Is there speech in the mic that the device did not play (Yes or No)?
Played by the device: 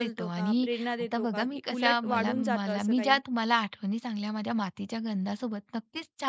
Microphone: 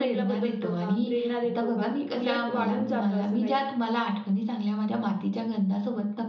No